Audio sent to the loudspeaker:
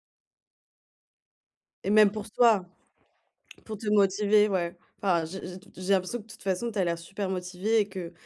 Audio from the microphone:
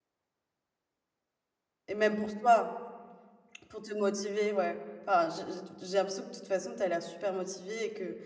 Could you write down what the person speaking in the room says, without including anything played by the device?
none

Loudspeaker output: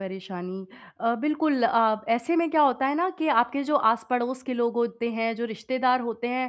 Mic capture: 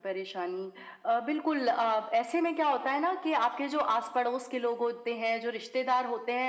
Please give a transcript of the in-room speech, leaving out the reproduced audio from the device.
none

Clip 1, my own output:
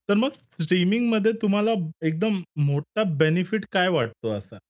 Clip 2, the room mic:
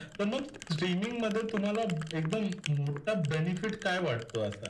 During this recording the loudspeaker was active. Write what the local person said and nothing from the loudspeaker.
none

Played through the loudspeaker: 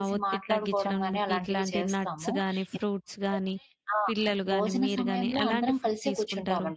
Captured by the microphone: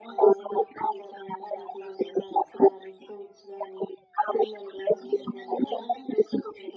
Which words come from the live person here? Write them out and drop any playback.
none

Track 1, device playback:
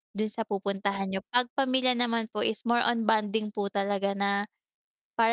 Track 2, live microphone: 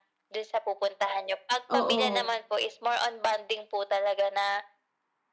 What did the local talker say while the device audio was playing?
oo,

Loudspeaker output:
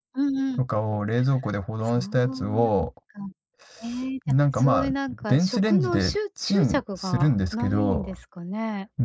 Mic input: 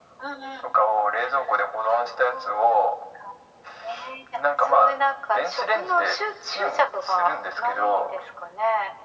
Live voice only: none

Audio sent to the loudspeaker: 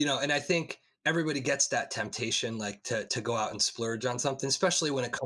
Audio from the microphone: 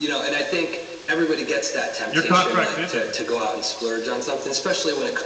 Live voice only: your contract's ended.

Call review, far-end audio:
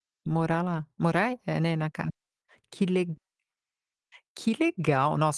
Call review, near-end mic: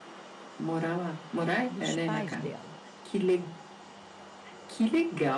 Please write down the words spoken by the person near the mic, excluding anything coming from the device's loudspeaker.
dos pais dela,

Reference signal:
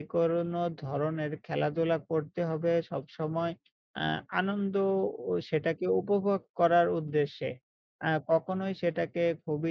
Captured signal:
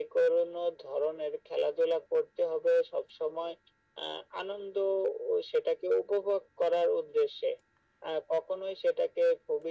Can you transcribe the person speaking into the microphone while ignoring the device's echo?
none

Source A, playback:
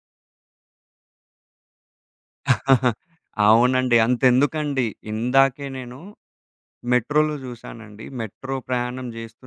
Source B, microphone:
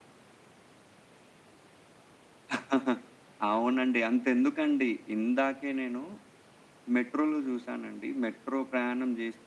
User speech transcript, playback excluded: none

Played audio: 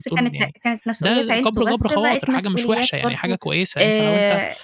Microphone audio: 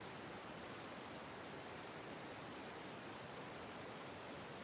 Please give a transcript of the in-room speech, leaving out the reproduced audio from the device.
none

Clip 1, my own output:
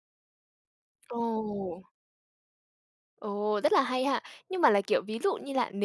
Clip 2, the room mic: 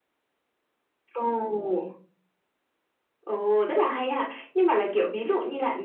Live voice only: none

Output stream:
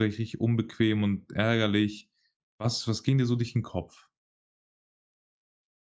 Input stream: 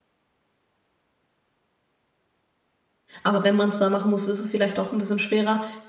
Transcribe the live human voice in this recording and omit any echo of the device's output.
aber wenn man's da machen muss, ist es vielleicht doch 'n bisschen schwerer,

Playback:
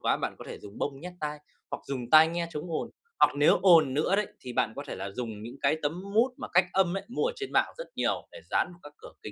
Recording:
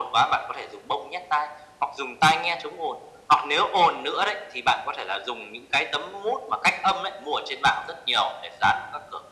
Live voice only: none

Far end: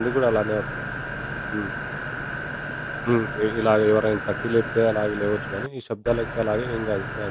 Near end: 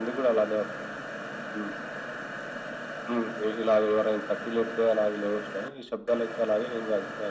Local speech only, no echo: none

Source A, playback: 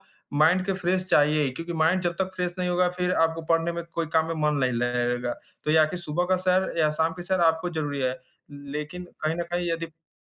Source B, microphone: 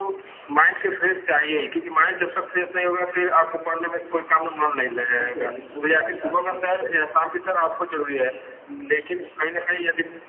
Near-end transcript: अपना शरीर को हिलाता नहीं,

